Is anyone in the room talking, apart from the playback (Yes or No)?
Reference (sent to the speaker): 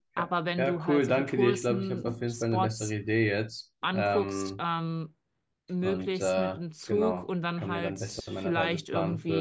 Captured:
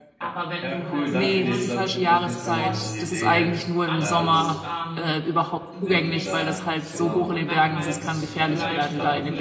Yes